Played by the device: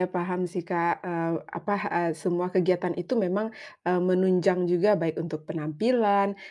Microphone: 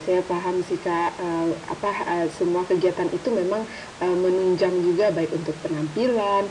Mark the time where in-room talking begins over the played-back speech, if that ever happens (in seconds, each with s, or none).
none